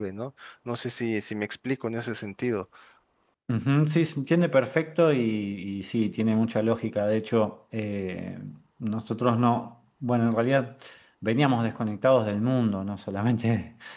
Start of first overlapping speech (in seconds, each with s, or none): none